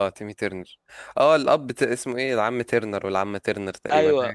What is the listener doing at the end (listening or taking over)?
taking over